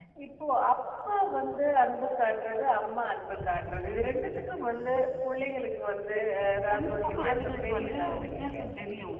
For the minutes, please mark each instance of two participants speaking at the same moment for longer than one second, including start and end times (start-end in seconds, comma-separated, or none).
6.7-8.6